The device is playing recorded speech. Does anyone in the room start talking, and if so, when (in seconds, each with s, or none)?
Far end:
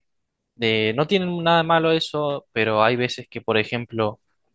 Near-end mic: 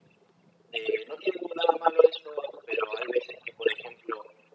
none